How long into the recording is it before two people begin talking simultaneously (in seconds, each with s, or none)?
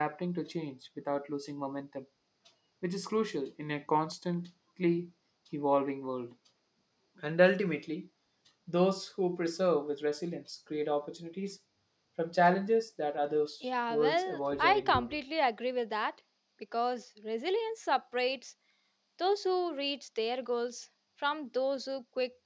13.9 s